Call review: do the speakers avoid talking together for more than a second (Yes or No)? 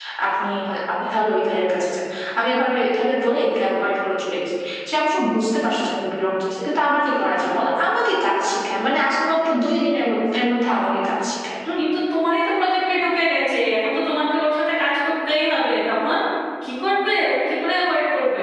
Yes